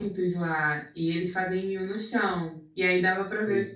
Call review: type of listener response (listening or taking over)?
listening